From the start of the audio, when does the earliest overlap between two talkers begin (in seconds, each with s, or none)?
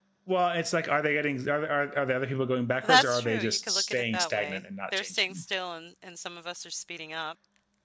2.8 s